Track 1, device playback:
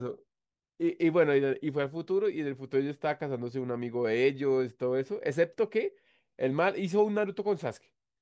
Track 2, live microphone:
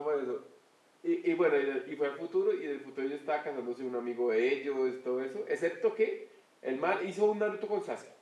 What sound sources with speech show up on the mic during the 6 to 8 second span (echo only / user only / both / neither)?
echo only